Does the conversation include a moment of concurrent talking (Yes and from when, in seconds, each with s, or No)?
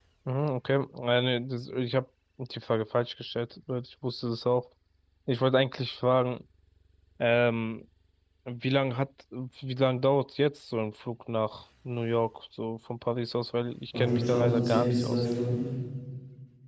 Yes, from 13.9 s